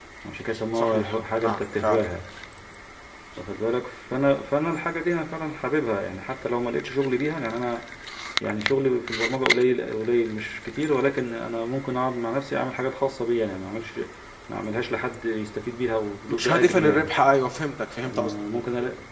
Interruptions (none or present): present